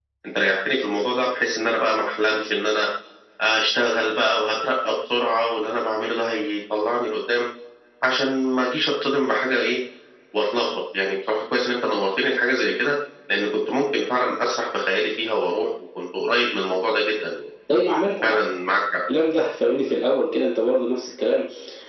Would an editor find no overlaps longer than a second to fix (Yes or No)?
Yes